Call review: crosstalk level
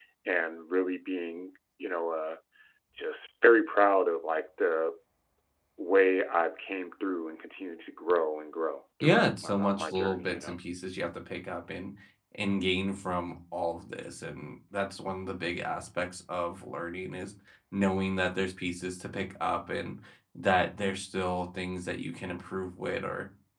present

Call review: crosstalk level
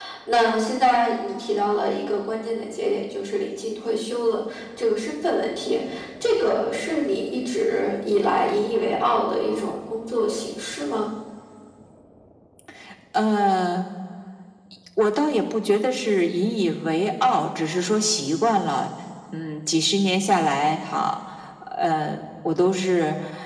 none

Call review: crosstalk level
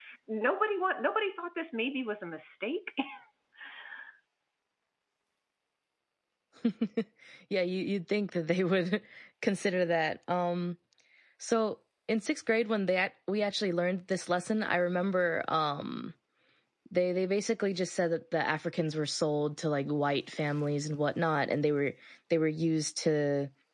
none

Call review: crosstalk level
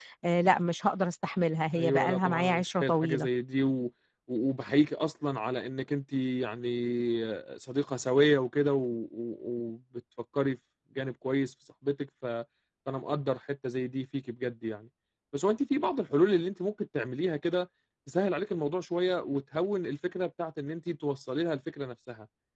present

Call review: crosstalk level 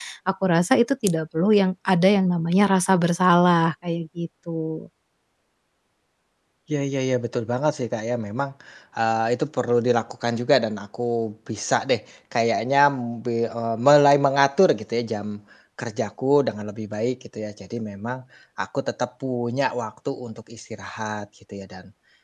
none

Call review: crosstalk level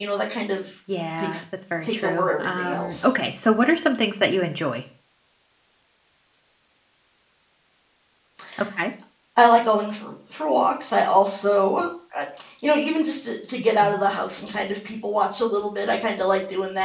present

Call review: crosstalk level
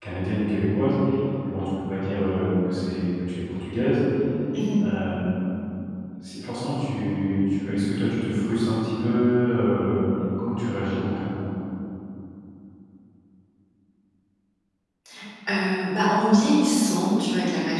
none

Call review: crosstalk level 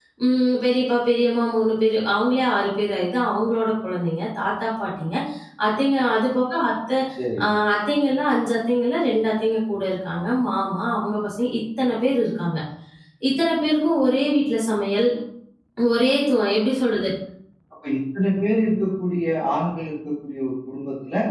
none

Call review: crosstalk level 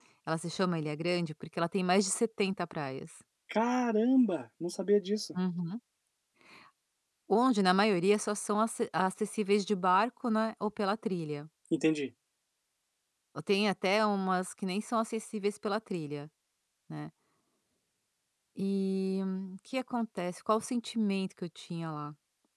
none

